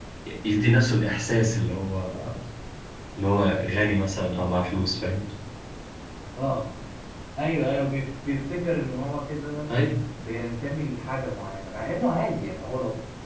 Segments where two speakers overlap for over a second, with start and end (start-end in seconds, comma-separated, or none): none